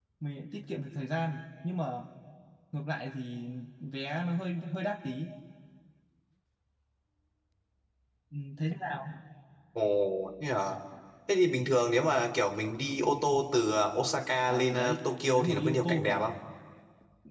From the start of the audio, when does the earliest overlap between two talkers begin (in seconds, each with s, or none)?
14.5 s